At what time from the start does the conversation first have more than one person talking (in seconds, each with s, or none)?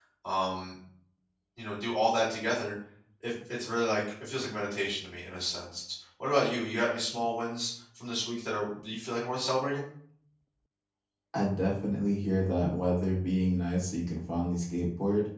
none